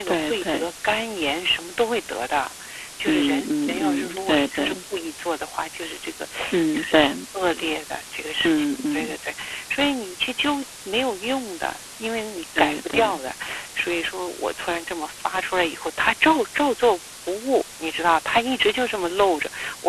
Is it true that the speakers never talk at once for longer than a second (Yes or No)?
No